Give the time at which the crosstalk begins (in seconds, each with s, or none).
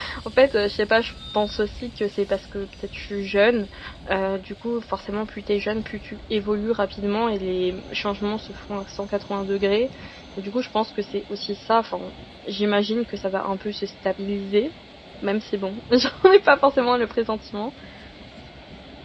none